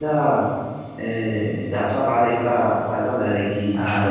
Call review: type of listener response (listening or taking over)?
taking over